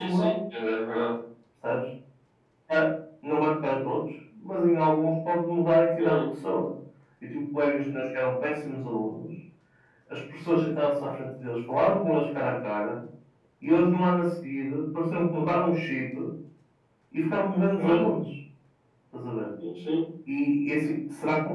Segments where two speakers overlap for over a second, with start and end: none

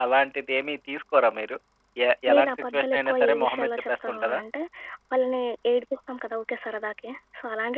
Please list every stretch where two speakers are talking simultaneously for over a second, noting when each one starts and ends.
2.3-4.4

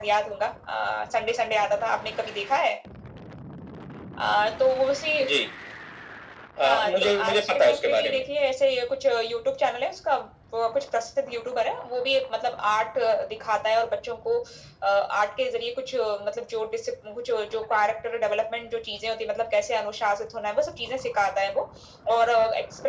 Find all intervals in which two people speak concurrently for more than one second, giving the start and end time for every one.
6.6-8.2

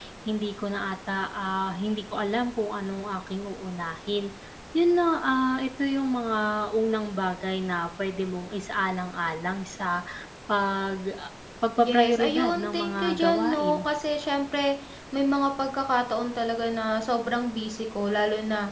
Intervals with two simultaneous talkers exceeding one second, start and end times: 11.8-13.8

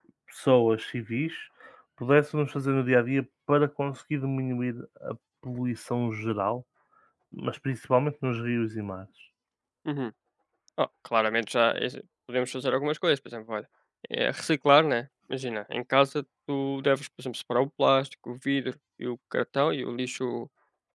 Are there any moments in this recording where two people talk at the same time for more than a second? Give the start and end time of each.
none

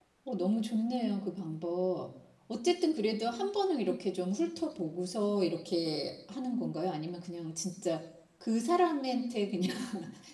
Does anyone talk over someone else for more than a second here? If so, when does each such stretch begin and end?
none

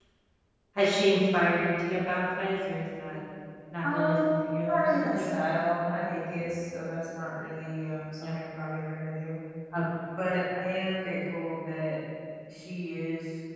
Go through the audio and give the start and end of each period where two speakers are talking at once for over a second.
3.8-5.3

